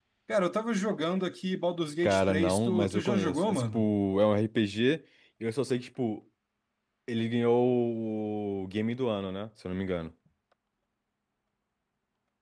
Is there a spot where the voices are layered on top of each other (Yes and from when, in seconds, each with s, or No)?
Yes, from 2.0 s